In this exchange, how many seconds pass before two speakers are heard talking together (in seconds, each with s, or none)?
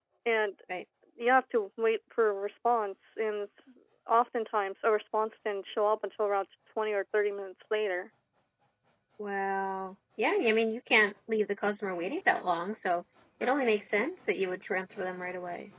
none